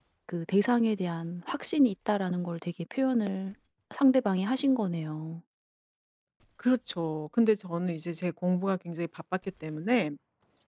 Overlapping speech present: No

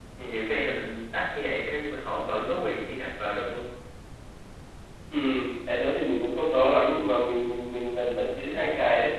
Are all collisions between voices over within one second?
Yes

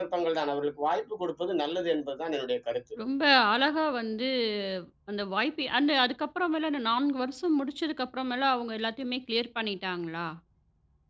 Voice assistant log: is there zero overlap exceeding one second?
Yes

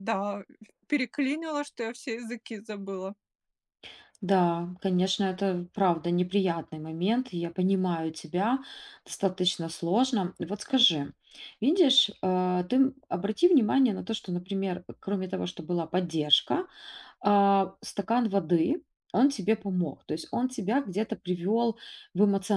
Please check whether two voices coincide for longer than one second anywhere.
No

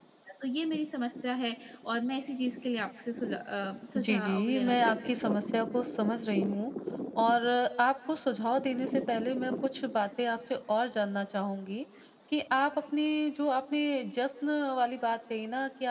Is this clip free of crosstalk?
No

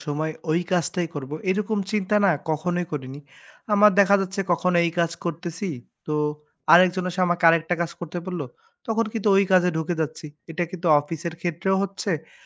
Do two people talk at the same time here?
No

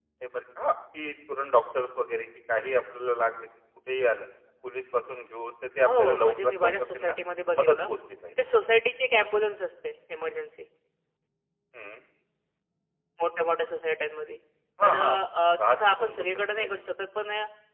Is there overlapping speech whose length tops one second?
Yes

